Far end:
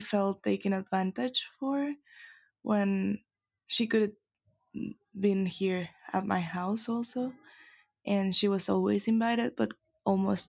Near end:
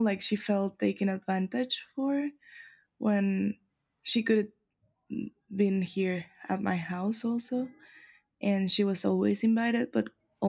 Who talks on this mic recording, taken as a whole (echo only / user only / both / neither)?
echo only